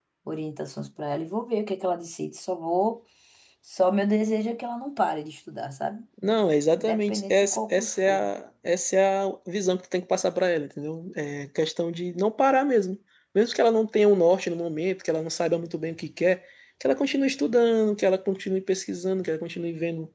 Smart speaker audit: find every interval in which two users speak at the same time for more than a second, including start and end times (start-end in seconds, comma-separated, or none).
6.8-8.2